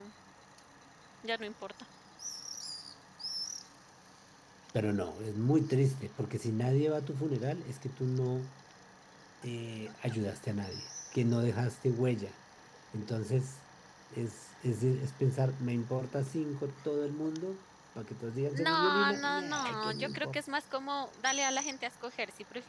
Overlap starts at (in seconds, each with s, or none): 18.5 s